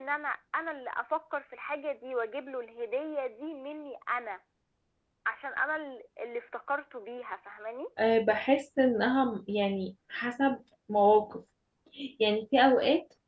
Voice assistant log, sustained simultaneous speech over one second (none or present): none